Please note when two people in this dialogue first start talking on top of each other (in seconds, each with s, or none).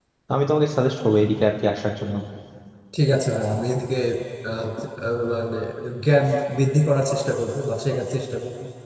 none